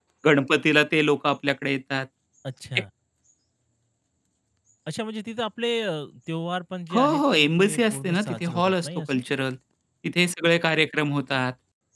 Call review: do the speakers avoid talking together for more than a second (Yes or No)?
No